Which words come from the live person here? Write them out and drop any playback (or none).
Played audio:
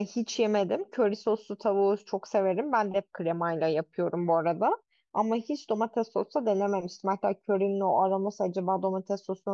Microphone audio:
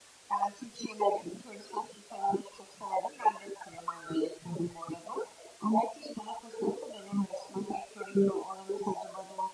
none